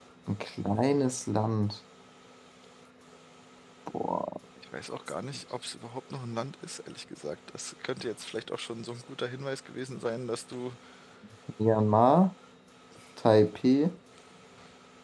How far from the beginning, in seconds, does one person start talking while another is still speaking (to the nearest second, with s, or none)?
none